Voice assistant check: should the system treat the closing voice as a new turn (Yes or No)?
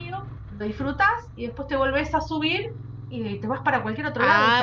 Yes